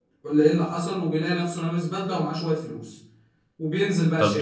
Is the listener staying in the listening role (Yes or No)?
No